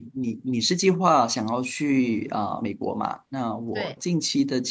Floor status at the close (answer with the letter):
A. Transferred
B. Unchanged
B